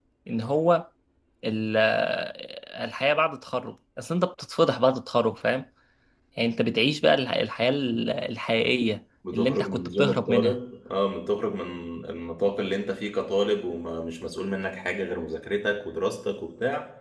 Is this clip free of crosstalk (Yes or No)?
No